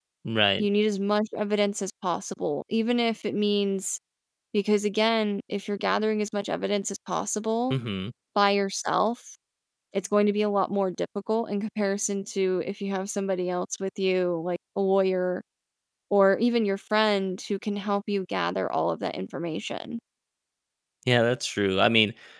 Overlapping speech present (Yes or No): No